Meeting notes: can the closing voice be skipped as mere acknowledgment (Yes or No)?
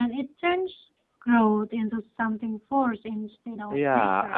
No